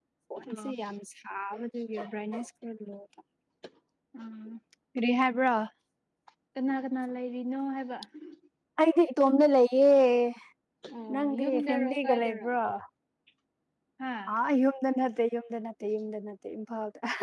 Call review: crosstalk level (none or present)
present